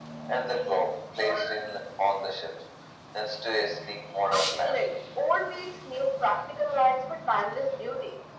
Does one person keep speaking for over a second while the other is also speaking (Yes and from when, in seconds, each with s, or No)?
No